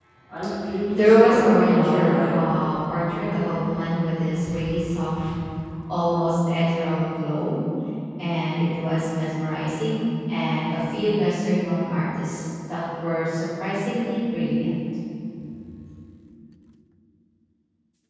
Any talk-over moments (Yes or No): Yes